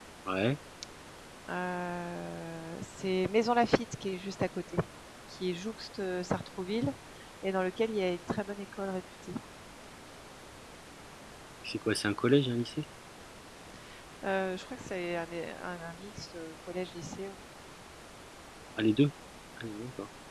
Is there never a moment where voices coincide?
Yes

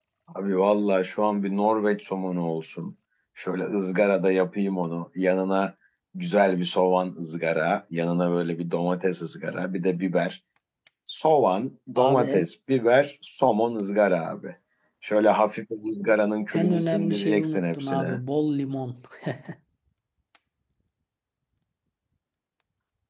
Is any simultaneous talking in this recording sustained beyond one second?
Yes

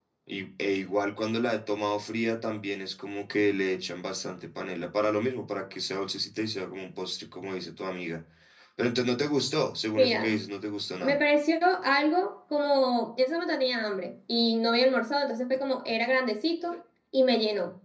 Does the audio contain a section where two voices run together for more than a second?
No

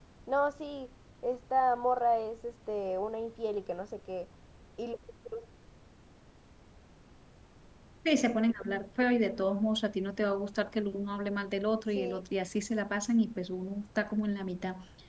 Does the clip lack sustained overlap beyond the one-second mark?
Yes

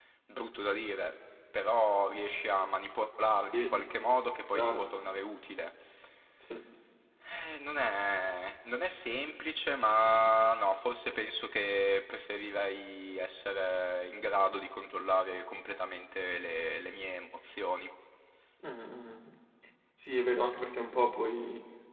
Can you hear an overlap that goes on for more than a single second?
No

